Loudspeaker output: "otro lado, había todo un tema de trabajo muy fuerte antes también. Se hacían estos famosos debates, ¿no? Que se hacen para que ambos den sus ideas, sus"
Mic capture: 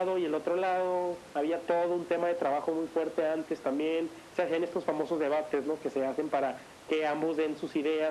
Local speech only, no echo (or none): none